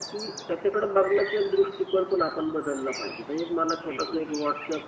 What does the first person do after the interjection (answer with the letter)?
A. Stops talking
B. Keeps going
B